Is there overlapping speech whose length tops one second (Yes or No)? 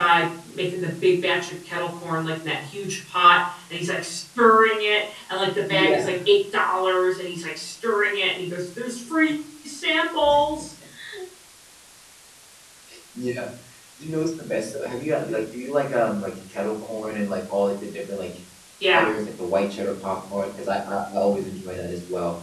No